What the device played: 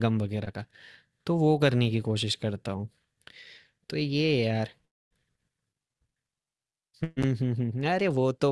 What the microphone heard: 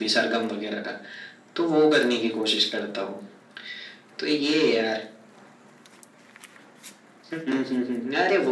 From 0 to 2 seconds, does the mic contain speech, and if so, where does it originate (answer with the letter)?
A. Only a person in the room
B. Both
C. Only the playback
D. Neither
C